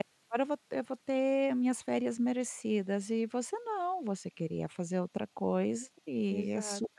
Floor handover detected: Yes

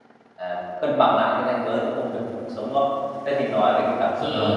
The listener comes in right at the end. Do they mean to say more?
No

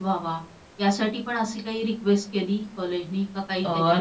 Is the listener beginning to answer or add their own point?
Yes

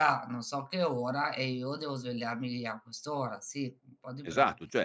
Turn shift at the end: Yes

